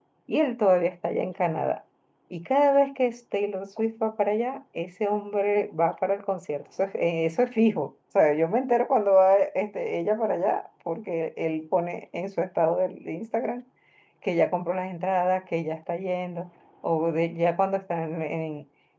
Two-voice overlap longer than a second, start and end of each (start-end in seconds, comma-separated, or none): none